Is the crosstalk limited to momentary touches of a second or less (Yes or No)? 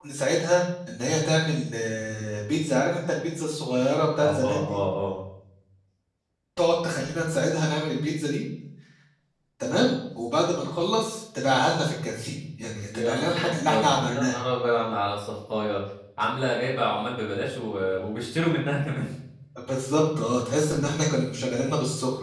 No